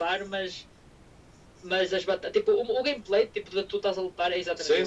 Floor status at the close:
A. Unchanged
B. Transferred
B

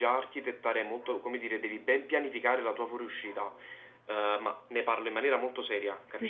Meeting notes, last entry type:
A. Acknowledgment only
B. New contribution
B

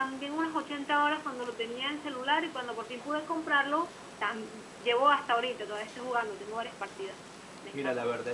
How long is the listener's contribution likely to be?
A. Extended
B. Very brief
A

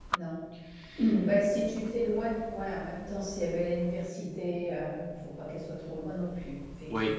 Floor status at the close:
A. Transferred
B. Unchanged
A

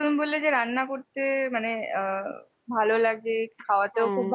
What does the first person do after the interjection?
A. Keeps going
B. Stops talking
A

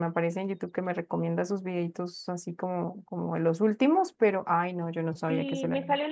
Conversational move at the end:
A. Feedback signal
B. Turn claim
B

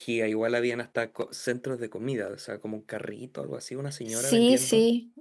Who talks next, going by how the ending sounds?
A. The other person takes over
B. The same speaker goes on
A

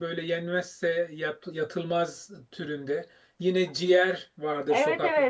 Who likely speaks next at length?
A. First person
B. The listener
B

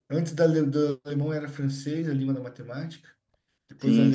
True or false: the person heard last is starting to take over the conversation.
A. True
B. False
B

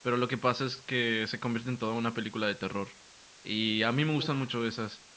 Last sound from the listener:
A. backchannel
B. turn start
A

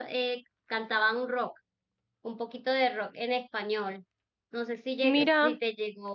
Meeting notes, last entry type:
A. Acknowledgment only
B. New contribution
A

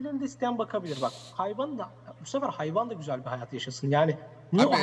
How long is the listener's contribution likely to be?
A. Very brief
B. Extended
B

